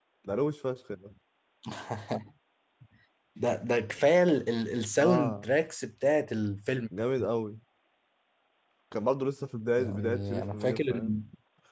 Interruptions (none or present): present